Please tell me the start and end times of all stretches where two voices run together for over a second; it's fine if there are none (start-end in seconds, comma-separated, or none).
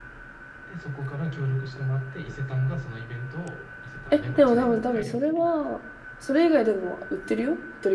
4.1-5.5